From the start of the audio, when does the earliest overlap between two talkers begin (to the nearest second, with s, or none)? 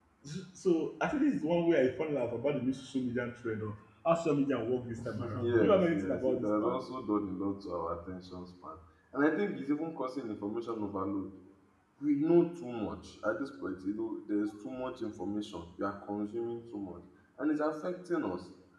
5 s